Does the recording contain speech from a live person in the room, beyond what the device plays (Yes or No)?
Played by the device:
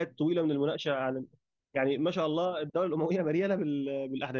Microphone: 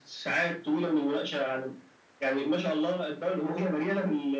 No